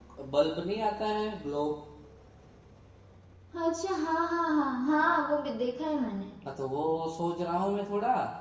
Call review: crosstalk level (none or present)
none